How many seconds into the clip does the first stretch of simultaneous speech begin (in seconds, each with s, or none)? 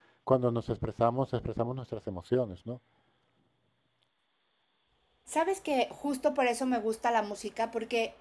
none